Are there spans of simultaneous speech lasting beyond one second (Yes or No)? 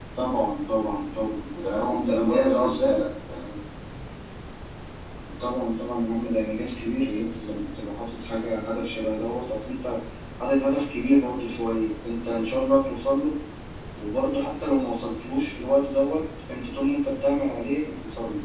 Yes